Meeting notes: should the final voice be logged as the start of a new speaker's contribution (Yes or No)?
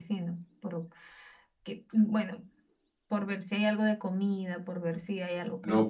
Yes